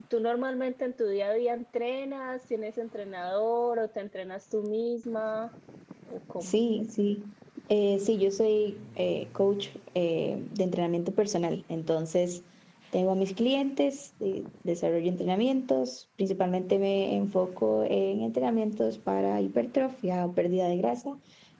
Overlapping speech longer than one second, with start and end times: none

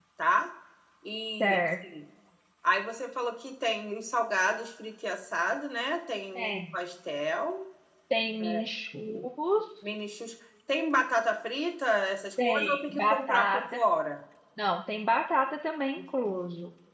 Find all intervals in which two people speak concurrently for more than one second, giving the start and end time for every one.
12.4-13.8

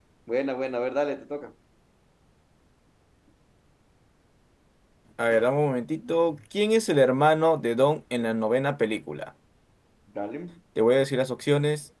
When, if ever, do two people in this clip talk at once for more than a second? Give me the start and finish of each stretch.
none

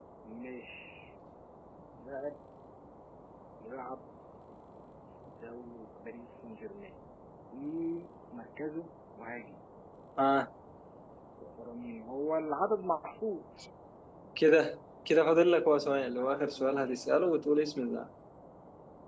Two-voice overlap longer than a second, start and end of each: 15.8-17.2

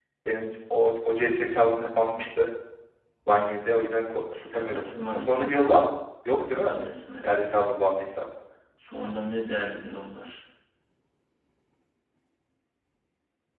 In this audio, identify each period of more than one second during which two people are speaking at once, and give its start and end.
4.3-5.7

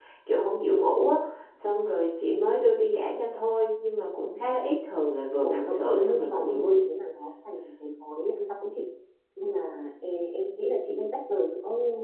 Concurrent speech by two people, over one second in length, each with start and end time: 5.4-6.6

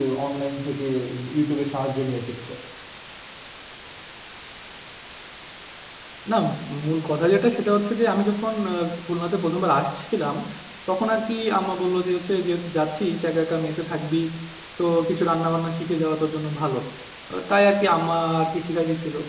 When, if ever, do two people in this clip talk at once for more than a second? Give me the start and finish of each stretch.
none

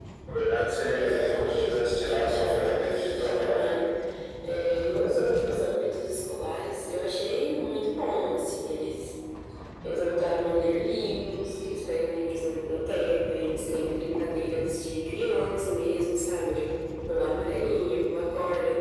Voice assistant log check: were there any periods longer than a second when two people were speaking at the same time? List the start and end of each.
0.9-3.9

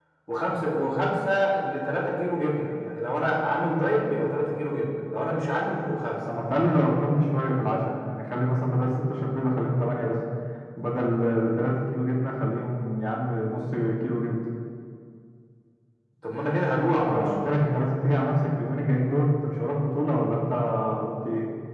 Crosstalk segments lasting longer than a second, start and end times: none

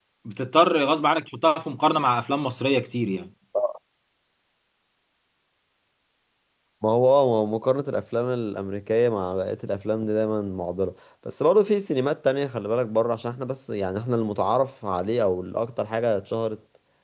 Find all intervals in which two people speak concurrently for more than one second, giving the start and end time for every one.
none

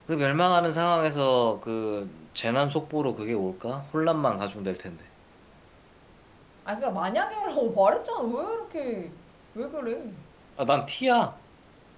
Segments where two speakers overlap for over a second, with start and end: none

